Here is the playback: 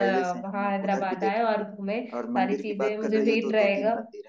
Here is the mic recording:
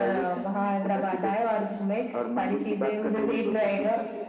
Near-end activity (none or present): none